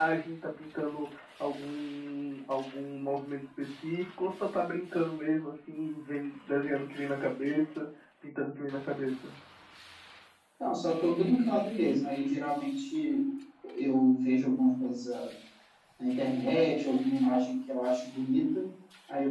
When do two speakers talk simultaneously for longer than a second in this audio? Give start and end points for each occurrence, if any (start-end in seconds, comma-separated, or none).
none